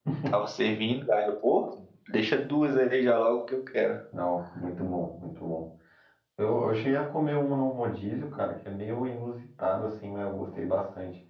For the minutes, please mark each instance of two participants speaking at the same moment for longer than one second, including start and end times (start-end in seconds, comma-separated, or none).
none